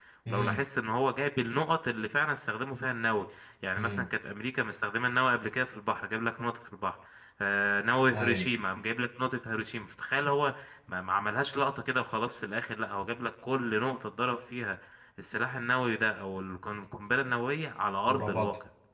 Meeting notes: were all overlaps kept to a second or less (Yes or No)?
Yes